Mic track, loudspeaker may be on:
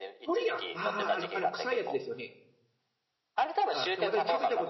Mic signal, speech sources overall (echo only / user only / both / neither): both